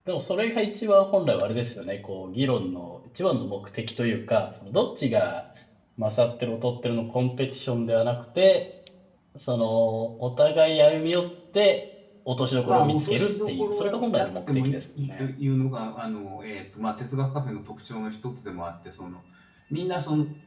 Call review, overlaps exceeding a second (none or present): present